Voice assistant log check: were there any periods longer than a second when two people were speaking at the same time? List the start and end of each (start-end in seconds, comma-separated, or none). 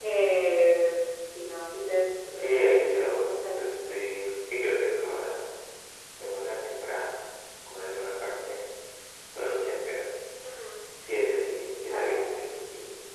2.4-3.6